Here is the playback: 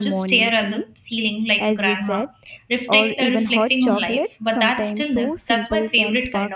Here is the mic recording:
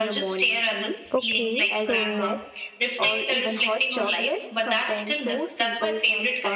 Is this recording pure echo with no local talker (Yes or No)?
No